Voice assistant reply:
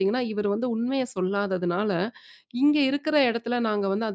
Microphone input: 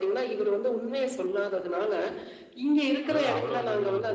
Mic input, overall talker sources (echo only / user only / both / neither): both